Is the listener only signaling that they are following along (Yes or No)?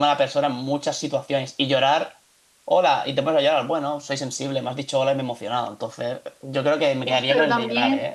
No